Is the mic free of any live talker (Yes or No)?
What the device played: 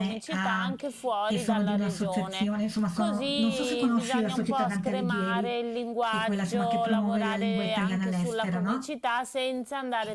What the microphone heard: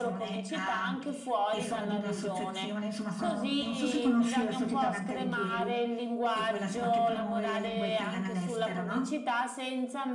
Yes